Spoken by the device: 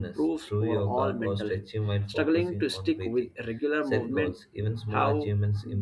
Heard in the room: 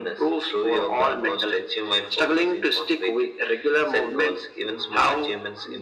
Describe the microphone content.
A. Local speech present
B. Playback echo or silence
B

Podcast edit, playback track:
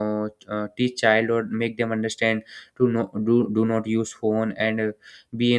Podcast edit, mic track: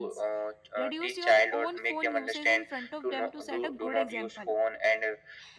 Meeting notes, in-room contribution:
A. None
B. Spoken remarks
B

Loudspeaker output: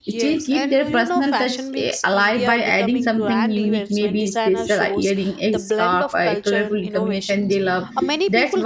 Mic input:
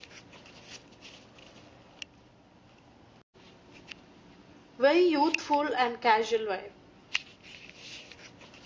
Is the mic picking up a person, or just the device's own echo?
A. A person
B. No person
A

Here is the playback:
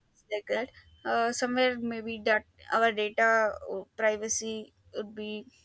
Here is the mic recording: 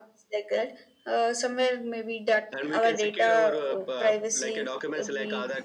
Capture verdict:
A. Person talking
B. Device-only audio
A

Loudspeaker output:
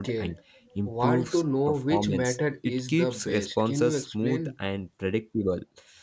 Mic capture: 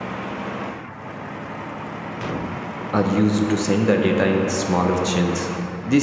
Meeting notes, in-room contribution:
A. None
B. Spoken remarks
B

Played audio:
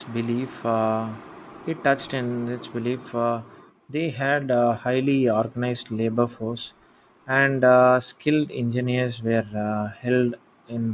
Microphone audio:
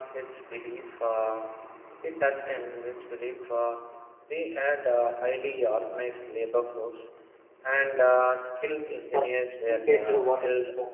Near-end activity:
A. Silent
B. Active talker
B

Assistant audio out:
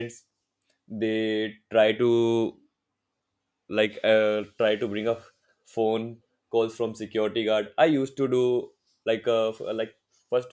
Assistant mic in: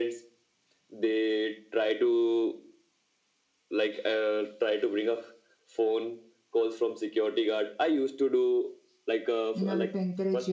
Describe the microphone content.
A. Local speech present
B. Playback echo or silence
A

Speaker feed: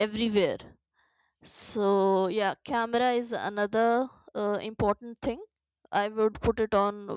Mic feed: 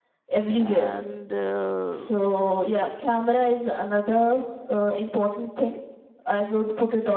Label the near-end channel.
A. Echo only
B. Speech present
B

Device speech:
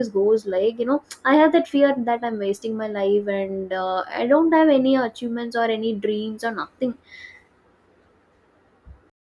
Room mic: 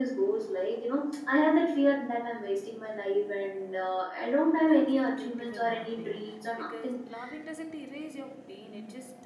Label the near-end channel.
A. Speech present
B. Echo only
A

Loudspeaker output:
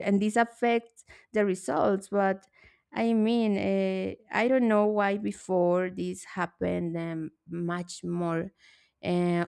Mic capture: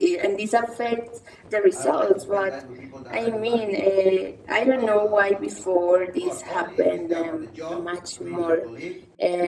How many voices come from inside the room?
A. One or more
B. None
A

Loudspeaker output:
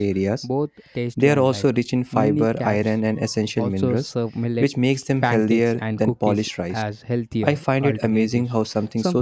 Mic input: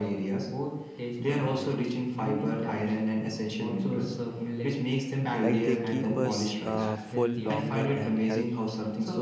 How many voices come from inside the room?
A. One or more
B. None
A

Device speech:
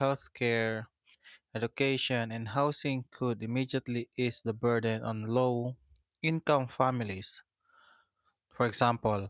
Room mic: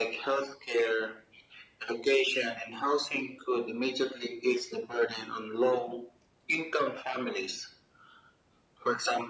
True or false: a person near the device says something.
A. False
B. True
A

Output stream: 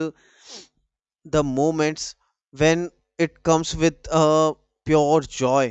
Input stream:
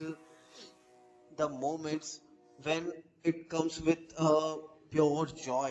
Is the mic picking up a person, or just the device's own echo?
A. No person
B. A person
A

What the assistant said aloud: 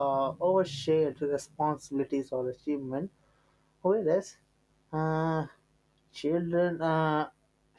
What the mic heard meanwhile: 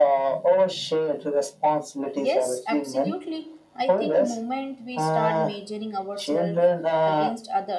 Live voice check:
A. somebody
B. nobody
A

